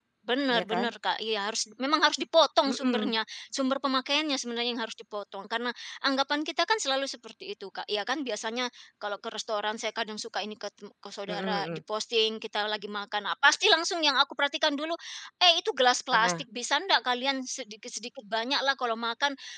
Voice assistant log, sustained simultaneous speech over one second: none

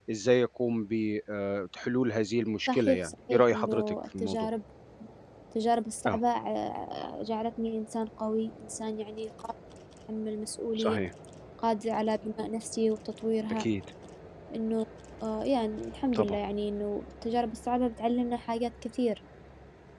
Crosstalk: present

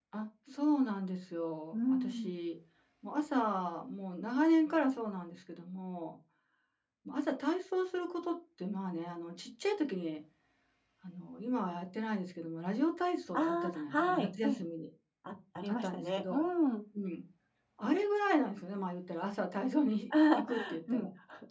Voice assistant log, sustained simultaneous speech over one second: present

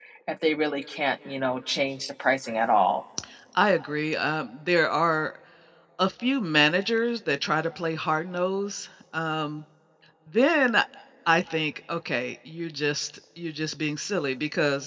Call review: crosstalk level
none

